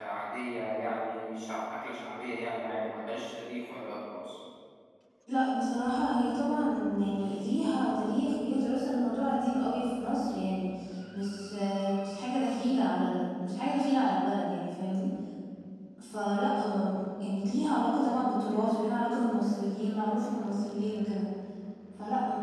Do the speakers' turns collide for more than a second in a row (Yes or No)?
No